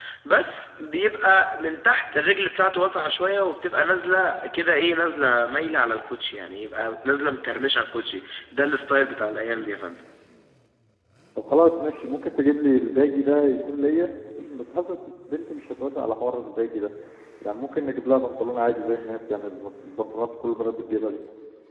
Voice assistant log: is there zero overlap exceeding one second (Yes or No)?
Yes